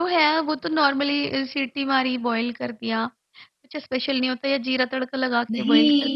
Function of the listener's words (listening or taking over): taking over